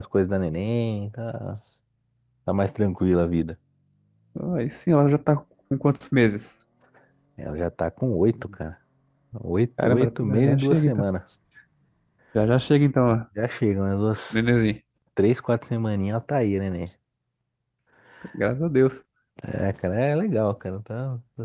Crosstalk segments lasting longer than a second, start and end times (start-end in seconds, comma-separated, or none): 9.8-11.0